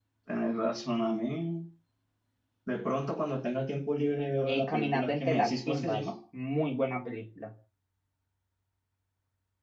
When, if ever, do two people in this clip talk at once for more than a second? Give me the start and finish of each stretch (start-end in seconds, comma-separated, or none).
4.5-6.0